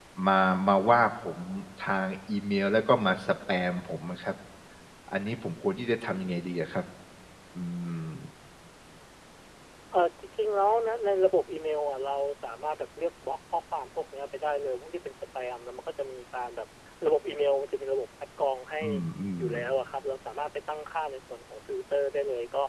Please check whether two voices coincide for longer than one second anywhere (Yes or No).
No